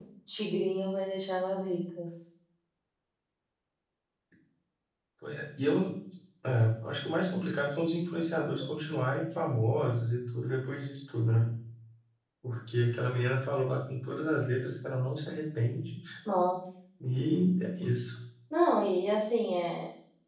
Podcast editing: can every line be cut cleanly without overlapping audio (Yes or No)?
Yes